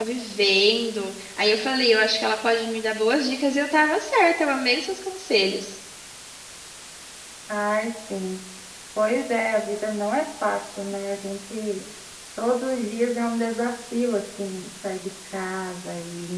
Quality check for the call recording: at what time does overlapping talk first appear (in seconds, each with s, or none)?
none